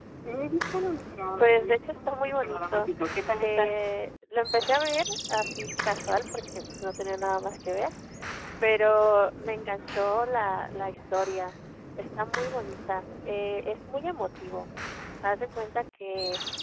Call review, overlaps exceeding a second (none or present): present